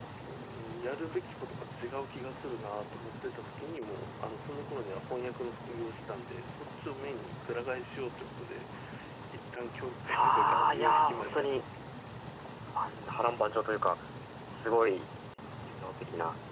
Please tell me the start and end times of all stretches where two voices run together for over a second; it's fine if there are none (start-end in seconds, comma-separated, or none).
10.1-11.6